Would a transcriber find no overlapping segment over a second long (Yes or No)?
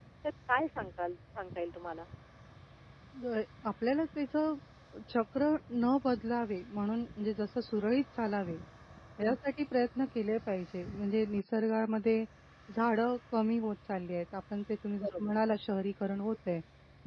Yes